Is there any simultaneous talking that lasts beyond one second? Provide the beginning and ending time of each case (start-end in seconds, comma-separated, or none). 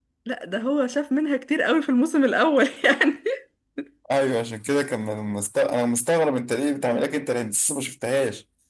none